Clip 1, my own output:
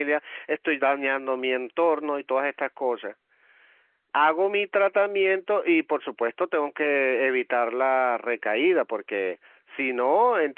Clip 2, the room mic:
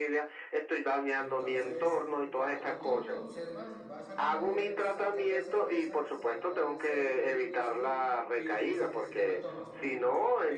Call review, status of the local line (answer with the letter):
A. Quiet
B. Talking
B